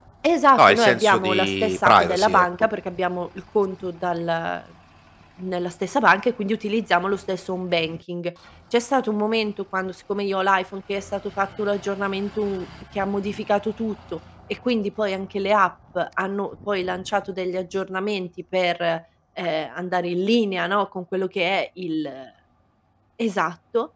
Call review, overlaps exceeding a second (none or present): present